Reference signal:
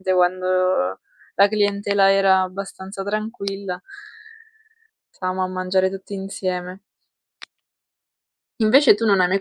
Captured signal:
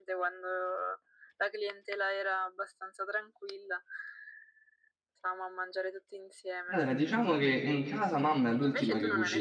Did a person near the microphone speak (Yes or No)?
Yes